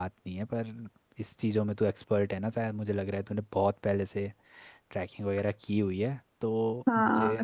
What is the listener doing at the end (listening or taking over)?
taking over